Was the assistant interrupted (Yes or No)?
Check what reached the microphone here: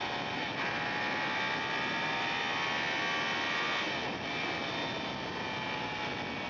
No